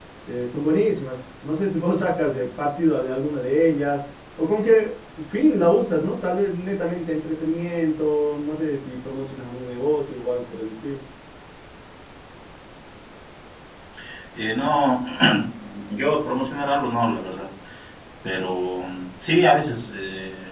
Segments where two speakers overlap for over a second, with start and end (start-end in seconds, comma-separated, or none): none